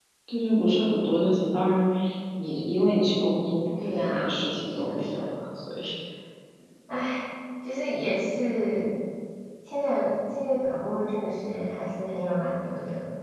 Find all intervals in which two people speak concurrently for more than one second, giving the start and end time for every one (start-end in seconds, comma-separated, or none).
3.8-5.3